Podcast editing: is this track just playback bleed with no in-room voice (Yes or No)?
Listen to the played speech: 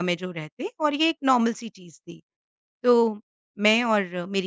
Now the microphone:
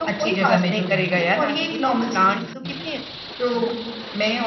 No